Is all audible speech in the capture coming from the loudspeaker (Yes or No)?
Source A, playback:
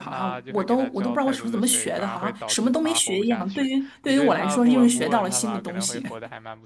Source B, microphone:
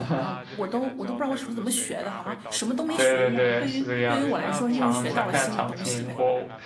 No